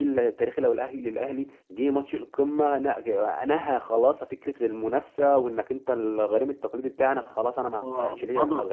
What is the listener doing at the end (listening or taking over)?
taking over